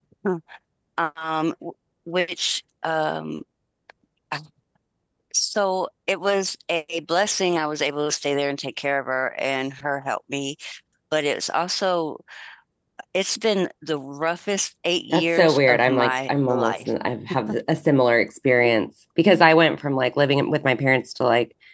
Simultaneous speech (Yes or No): Yes